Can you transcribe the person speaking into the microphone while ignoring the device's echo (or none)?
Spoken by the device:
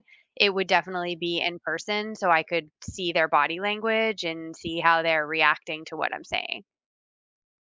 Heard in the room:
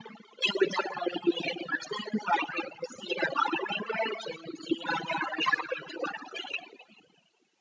none